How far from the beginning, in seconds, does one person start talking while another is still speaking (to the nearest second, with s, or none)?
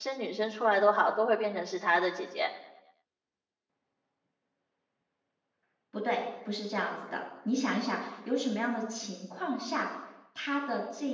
none